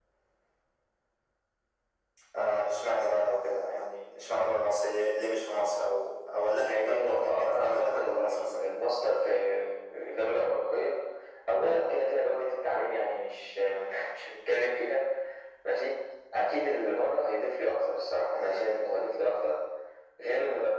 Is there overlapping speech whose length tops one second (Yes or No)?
Yes